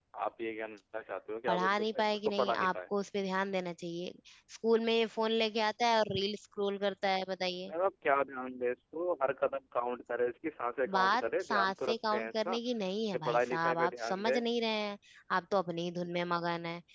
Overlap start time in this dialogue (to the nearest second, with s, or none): 1 s